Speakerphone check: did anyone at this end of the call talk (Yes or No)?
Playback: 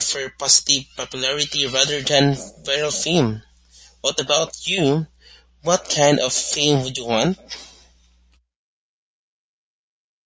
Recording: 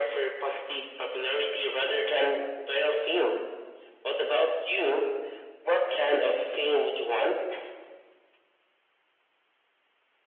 No